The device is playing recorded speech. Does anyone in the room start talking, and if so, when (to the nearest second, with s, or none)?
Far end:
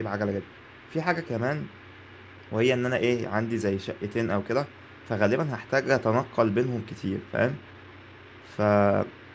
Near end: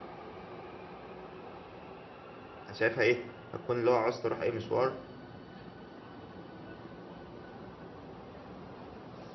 3 s